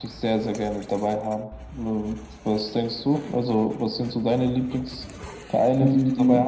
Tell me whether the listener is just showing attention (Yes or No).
No